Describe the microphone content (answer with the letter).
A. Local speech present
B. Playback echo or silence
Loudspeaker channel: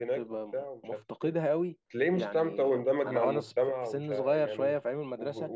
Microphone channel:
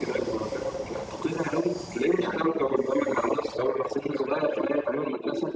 B